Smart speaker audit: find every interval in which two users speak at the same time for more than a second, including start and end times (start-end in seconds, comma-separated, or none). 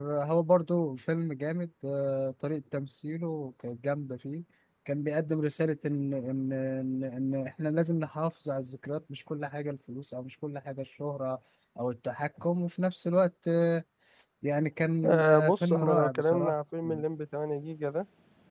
15.0-16.5